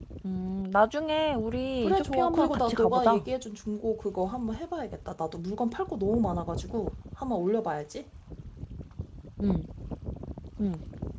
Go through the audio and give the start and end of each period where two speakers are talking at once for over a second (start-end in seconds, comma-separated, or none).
1.8-3.2